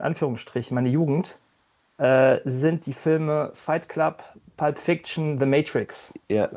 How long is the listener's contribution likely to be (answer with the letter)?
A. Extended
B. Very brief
A